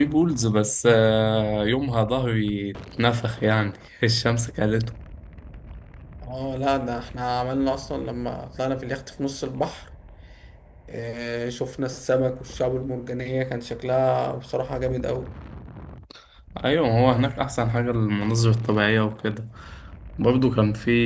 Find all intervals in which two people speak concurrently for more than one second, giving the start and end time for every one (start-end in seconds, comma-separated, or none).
none